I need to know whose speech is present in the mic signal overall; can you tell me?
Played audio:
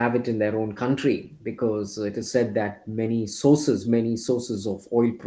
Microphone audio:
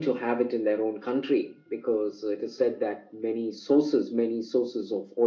echo only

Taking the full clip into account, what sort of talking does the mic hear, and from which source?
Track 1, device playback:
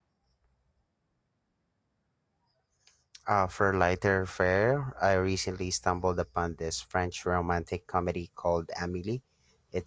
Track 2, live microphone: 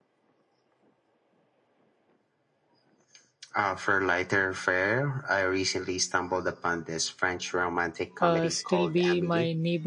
both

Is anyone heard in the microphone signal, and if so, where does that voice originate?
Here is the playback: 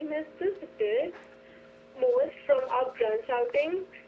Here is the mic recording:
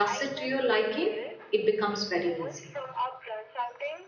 both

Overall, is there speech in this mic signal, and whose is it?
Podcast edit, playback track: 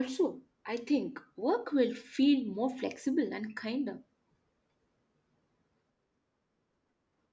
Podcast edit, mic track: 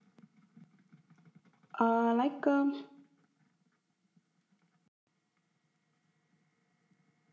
user only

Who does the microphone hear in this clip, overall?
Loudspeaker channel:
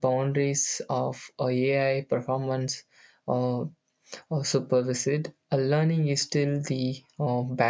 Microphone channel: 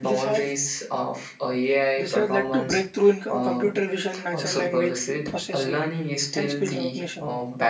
both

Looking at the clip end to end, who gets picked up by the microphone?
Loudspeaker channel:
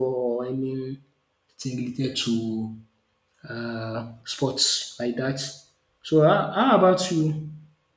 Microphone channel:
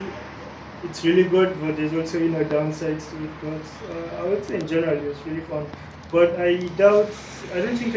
user only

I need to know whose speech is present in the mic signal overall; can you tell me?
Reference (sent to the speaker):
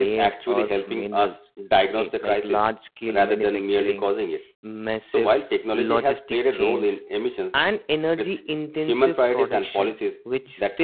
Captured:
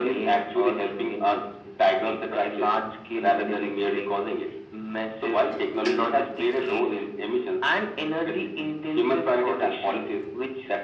echo only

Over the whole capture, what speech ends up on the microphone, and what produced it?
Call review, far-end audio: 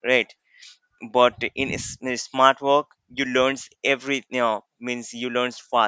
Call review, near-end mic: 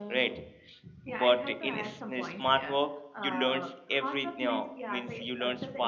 both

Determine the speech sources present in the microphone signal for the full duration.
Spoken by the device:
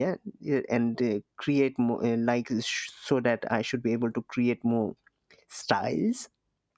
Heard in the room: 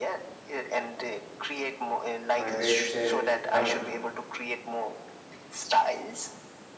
both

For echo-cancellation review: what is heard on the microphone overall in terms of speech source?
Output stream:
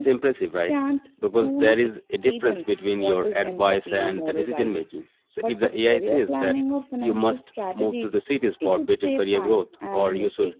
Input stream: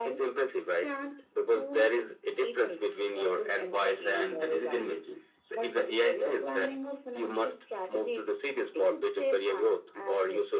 echo only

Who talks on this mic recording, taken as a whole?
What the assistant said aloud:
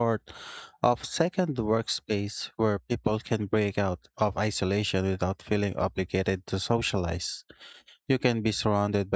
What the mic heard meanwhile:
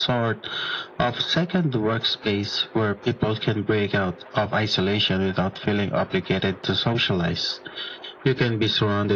echo only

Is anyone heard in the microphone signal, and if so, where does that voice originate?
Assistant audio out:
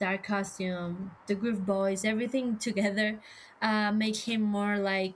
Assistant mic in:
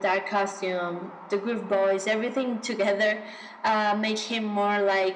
echo only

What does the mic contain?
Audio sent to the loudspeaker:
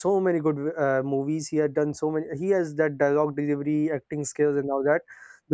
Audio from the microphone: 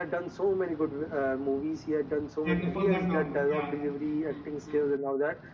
both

